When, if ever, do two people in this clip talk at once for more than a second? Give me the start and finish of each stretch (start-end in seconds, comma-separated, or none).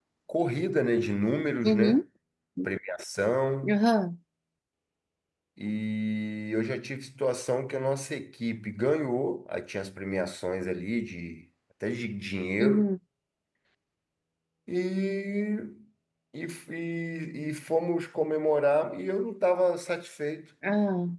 none